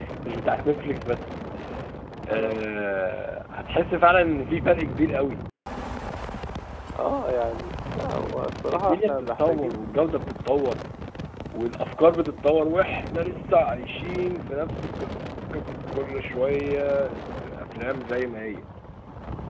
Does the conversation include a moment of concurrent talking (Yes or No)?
Yes